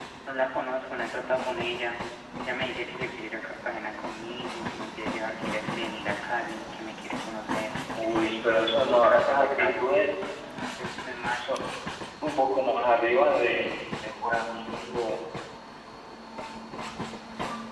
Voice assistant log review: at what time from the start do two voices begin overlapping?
8.0 s

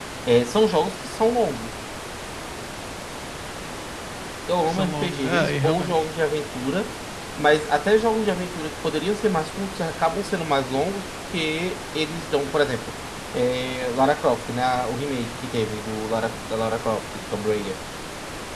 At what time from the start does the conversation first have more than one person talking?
4.7 s

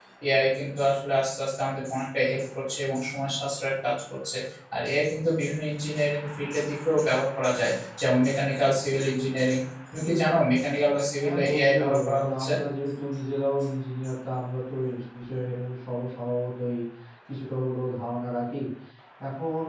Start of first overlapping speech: 11.2 s

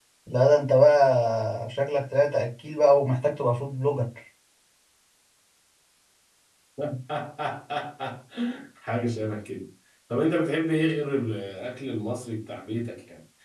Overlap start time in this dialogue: none

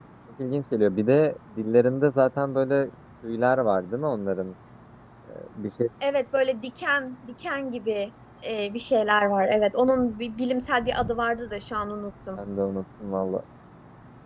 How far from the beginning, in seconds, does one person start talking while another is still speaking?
none

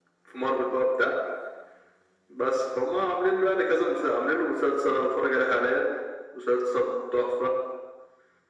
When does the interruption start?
none

